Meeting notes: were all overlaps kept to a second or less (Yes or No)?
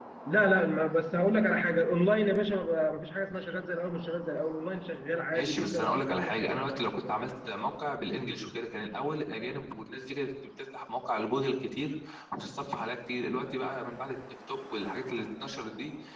No